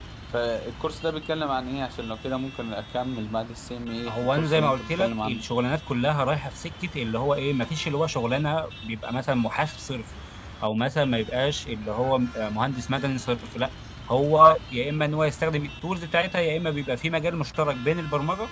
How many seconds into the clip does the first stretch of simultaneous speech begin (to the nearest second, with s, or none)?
4 s